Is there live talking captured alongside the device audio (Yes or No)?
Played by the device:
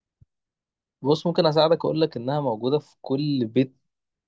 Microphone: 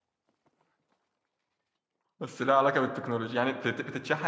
Yes